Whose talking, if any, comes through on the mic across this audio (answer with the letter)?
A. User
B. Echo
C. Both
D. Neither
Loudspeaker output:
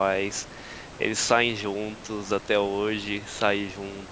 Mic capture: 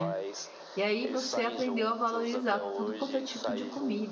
C